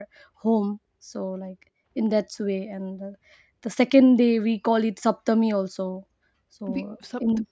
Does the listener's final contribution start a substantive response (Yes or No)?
Yes